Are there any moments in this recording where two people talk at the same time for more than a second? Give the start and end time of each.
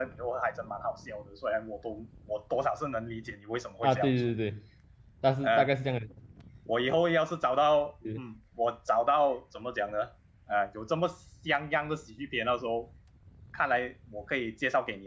none

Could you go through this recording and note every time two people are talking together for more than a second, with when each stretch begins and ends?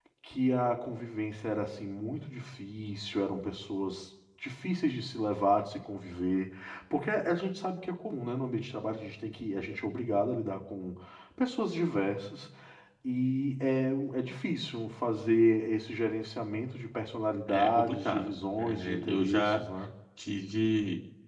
17.5-19.6

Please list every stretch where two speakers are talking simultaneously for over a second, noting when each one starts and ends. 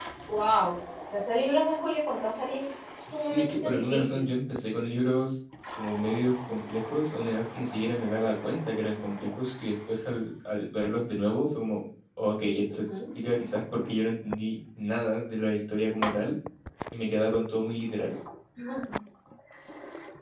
3.1-4.3

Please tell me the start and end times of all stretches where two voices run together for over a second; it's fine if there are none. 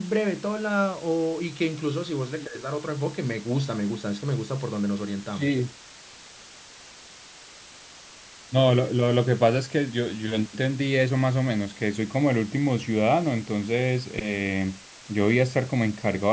none

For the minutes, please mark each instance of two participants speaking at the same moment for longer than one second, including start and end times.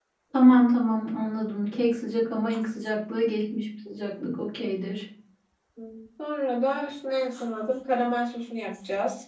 none

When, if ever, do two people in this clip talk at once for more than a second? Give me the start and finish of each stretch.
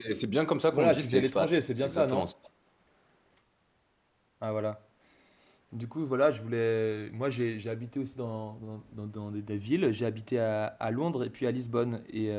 0.7-2.3

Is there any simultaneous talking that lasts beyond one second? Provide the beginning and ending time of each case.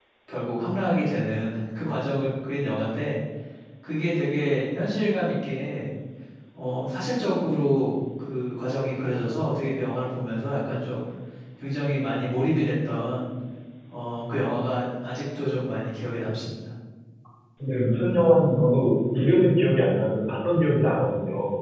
none

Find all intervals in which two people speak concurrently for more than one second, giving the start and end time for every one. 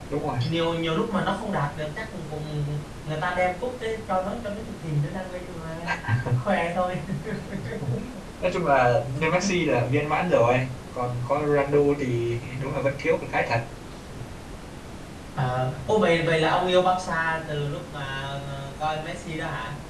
none

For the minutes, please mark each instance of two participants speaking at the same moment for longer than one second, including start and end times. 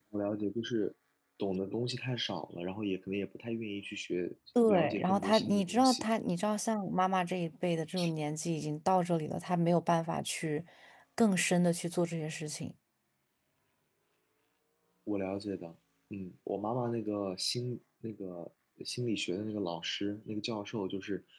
4.7-6.1

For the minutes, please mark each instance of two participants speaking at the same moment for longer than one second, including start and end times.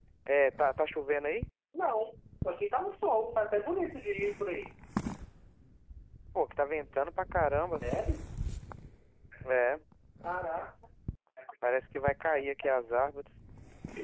none

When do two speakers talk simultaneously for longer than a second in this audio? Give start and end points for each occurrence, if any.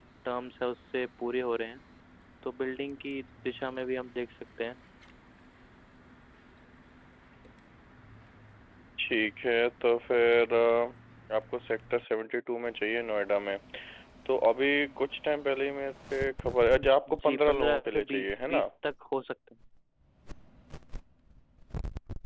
17.2-18.6

